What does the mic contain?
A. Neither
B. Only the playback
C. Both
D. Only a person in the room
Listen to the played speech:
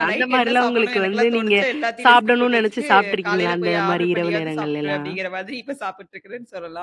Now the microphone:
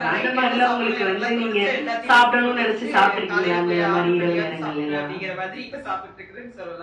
B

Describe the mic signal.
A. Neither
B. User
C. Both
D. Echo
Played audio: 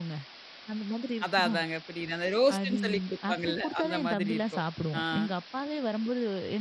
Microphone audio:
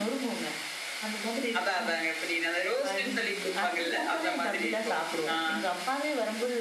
D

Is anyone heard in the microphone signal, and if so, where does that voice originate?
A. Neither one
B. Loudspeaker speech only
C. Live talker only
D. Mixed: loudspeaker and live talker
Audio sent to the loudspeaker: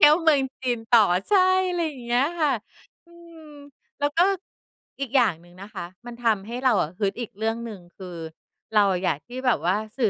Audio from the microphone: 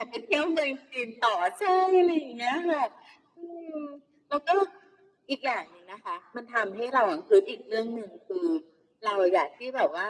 B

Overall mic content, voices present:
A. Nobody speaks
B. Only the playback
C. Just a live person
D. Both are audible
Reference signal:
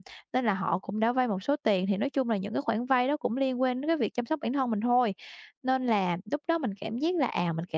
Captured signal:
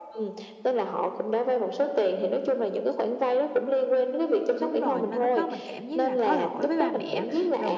D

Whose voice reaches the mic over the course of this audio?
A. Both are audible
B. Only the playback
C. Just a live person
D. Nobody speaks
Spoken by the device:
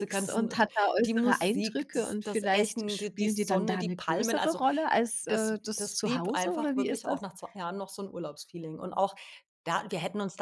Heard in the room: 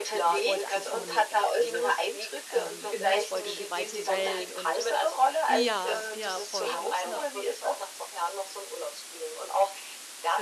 A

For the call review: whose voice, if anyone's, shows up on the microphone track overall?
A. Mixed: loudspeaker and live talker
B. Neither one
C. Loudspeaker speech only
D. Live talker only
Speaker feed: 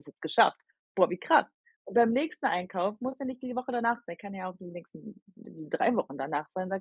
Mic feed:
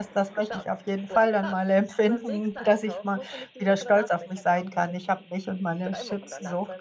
A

